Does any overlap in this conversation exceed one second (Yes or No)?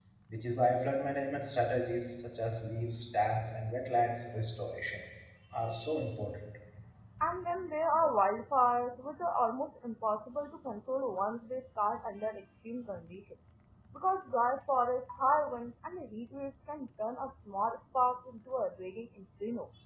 No